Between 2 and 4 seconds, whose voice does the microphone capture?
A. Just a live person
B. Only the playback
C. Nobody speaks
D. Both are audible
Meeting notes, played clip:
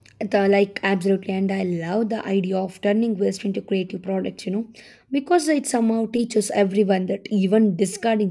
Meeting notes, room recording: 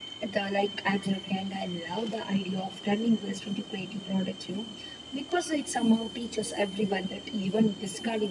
B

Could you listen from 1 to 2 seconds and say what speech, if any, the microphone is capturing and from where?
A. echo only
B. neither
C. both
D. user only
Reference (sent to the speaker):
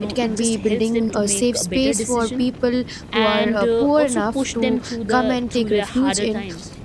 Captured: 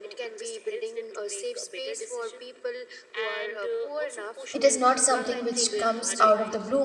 A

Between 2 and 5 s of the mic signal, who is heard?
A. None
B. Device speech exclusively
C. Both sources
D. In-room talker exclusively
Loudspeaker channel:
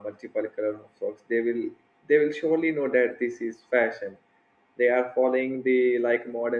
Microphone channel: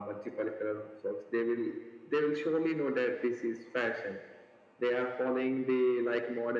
B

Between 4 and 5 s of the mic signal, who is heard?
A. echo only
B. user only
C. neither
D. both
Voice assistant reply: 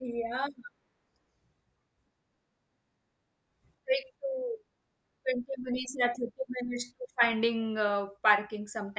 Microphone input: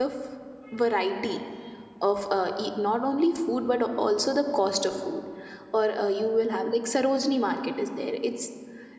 B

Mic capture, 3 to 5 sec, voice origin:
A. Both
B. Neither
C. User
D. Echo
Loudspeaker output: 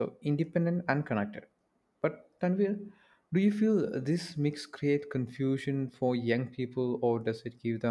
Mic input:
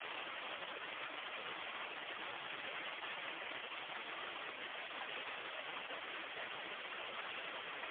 B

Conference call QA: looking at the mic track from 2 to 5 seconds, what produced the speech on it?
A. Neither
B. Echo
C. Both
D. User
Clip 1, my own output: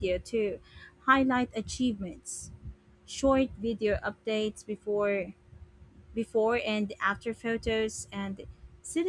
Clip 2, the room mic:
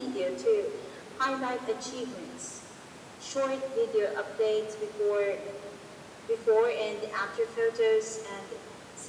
B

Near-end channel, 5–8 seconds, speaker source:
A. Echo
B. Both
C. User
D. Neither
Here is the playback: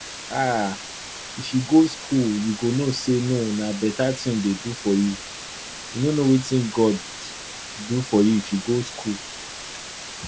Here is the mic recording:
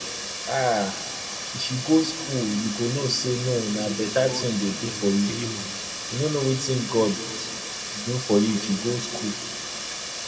B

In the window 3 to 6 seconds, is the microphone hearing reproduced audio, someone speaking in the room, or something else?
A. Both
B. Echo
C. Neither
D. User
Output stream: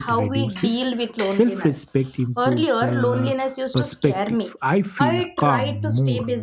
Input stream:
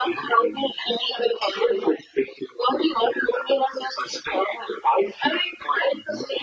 B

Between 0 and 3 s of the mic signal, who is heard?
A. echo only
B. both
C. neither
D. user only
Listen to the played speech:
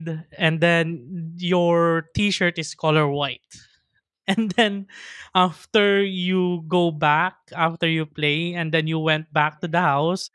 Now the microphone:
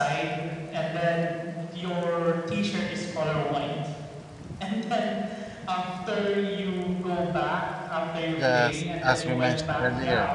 A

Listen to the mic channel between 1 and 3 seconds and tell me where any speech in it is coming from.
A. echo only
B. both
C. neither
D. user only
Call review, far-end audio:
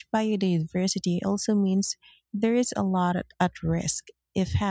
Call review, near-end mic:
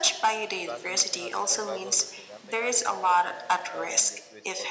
B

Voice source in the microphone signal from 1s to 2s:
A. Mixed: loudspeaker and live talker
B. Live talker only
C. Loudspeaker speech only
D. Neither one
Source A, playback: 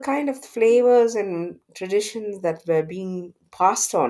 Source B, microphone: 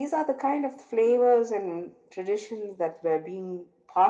C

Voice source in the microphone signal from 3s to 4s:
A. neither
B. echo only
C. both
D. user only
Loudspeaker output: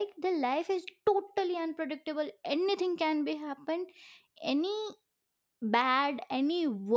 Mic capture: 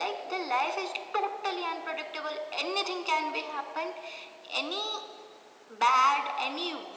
B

